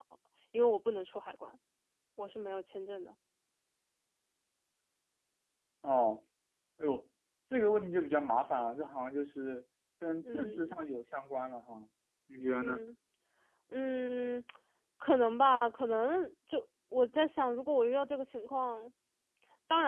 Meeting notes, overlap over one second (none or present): none